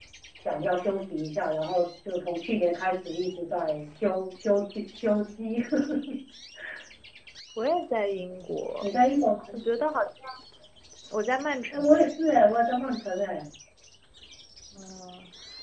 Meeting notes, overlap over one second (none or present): none